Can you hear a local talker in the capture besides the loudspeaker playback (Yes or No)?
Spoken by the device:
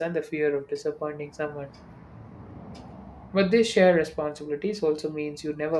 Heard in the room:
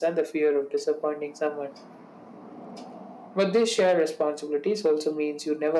No